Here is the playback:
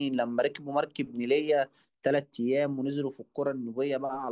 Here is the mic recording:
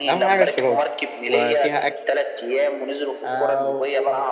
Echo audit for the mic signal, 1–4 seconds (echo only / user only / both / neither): both